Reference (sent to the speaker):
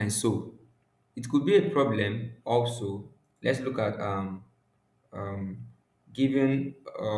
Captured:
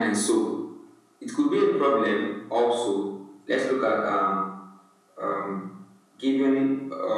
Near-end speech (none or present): none